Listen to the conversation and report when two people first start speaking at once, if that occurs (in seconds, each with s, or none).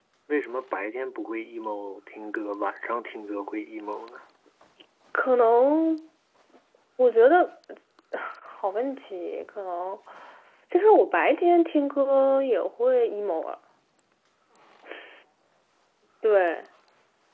none